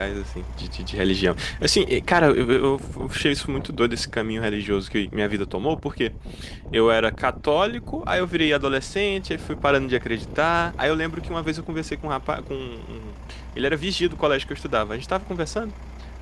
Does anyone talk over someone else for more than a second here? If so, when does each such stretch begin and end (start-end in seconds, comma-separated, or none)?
none